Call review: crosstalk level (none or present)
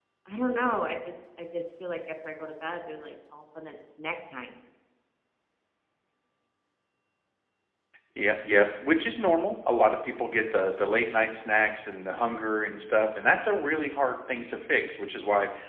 none